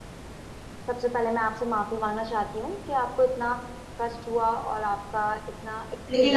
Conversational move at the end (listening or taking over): taking over